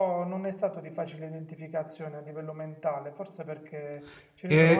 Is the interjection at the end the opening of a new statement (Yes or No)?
No